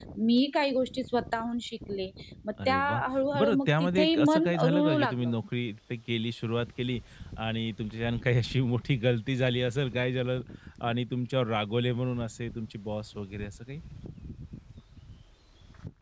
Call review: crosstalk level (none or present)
present